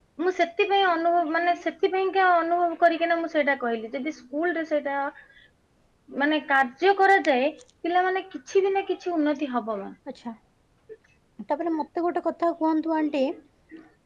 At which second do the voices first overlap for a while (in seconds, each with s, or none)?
none